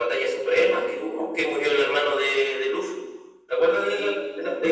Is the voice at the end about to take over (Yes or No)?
Yes